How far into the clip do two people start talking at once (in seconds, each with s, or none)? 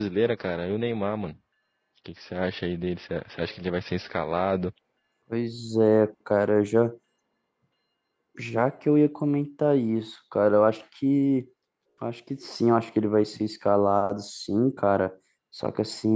none